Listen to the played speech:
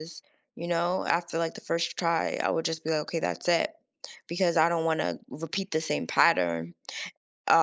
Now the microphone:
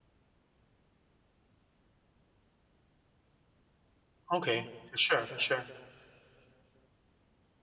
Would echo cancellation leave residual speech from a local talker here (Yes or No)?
Yes